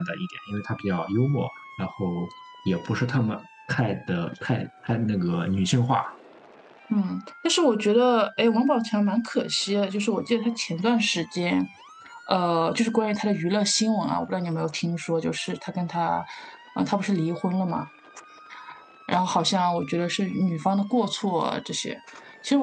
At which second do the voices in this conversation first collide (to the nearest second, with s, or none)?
none